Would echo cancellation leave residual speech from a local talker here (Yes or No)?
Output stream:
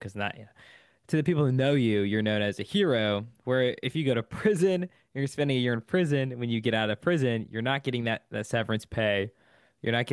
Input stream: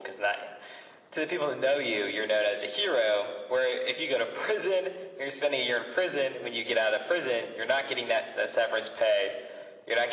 No